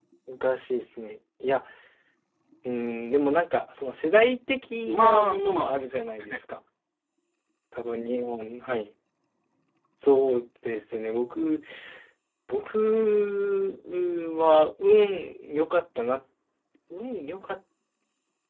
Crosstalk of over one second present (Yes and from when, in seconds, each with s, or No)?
Yes, from 4.9 s